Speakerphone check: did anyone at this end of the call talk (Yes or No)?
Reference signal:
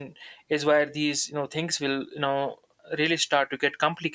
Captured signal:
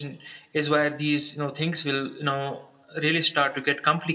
No